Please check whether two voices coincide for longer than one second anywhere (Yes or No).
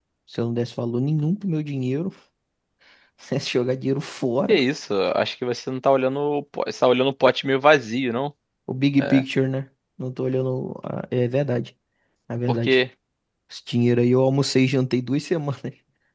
No